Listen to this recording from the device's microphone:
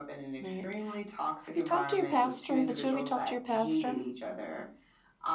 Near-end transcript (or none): Right. Have you talked to your pastor? Have the 2 of you talked to your pastor?